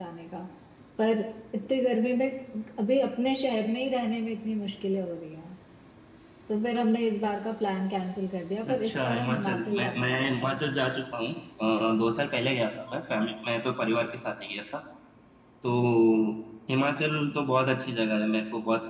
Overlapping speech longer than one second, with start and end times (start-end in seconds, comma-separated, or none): 8.7-10.5